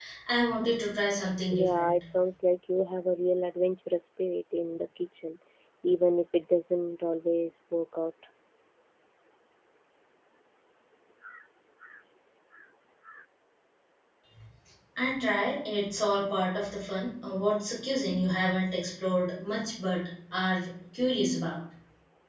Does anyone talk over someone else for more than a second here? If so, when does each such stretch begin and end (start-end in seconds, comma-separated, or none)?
none